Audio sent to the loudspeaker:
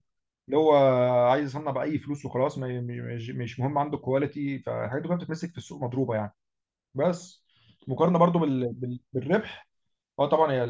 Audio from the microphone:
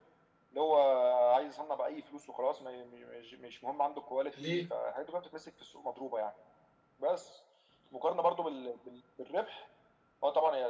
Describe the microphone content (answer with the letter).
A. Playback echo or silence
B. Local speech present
B